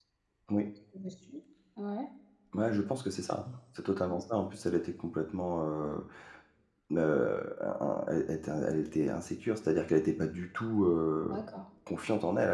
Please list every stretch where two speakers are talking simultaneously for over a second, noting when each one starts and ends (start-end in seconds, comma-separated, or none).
none